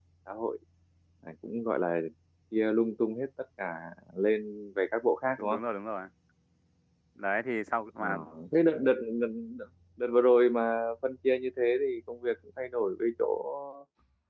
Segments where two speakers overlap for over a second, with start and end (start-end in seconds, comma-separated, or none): none